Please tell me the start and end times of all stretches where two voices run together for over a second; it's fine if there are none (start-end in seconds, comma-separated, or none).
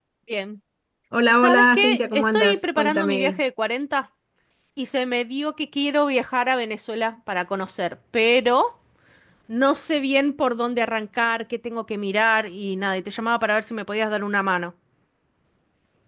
1.4-3.4